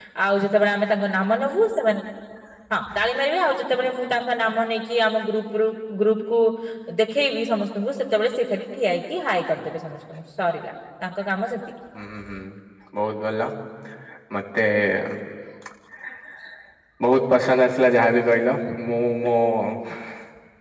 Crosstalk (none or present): none